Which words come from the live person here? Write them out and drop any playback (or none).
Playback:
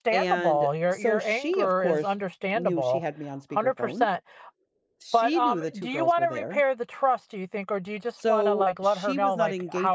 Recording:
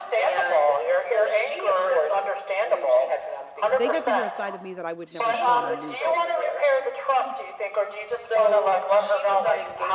they got to hear a side of me that I would never show my nieces.